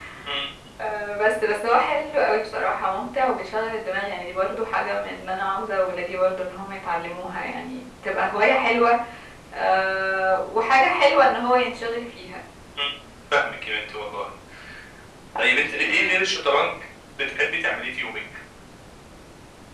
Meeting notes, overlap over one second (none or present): none